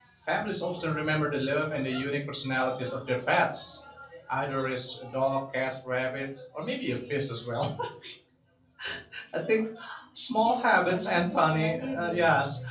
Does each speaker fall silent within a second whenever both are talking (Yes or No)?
No